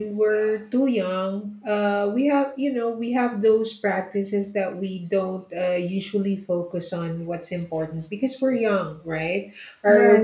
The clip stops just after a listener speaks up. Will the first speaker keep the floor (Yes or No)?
Yes